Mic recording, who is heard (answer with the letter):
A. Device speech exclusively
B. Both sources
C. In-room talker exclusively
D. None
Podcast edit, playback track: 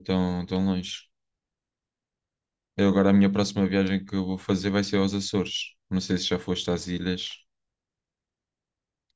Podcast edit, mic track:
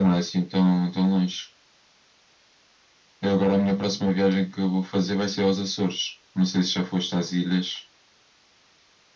A